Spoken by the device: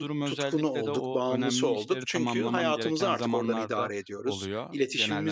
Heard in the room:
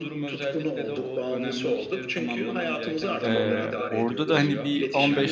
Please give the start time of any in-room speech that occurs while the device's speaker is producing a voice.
3.2 s

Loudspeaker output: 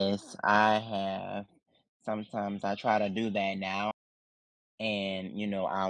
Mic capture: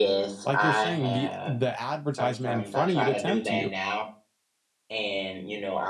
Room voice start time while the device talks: 0.4 s

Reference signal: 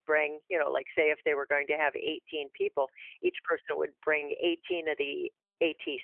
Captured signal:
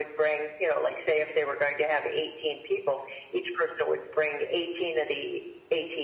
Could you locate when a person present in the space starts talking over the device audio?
none

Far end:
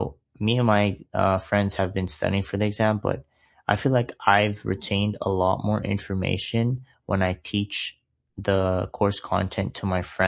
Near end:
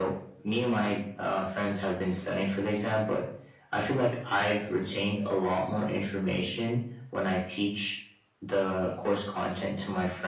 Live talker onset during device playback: none

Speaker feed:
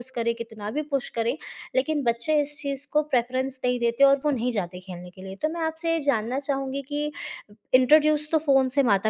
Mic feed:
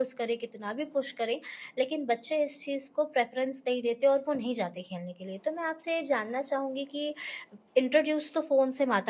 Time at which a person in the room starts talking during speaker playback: none

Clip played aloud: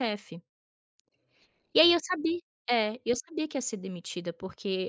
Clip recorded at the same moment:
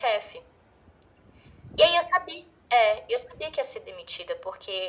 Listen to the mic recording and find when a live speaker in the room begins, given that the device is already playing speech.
none

